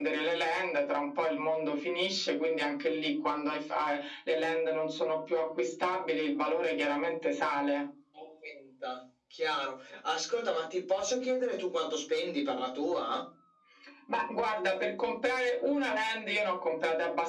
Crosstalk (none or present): none